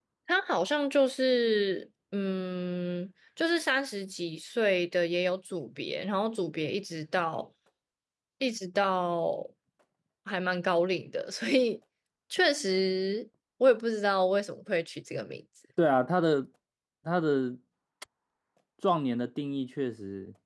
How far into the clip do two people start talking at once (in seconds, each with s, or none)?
none